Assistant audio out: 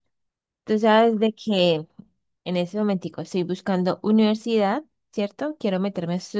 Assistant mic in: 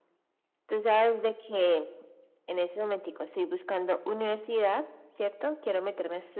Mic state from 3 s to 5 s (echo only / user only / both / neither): echo only